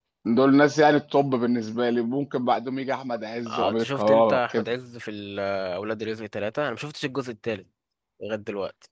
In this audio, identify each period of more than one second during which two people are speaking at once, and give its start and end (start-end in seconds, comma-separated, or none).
3.5-4.7